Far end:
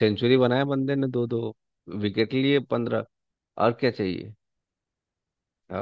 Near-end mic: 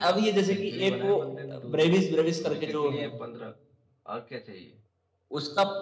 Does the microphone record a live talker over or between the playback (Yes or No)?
Yes